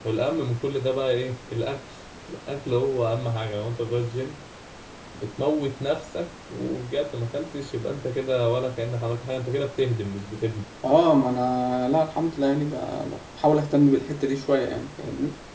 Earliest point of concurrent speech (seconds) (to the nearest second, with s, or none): none